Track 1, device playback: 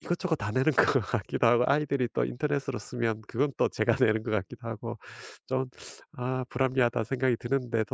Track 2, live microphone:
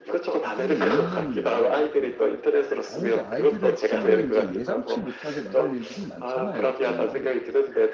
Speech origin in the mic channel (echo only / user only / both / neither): both